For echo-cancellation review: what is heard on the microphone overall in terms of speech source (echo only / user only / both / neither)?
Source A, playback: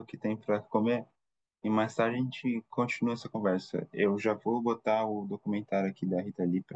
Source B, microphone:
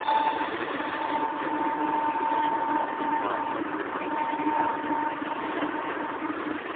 neither